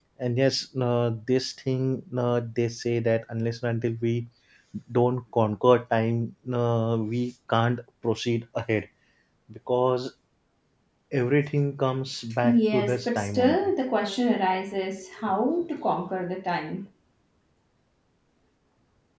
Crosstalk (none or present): present